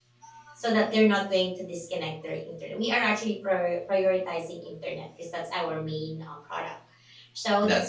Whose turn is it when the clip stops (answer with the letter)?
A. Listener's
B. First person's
B